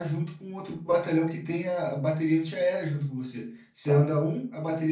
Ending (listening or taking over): listening